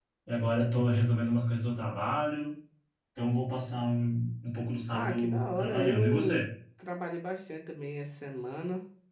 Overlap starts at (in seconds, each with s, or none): 4.9 s